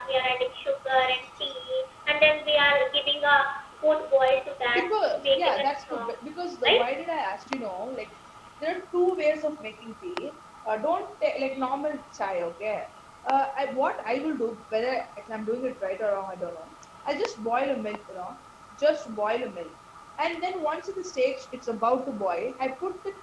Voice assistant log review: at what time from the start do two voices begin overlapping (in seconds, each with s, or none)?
4.7 s